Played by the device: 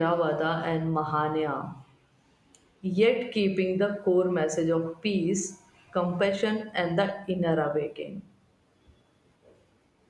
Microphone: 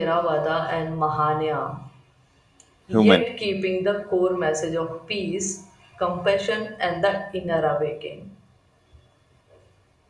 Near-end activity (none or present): present